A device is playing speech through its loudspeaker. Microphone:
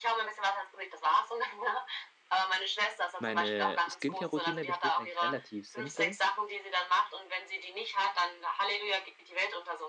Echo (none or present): present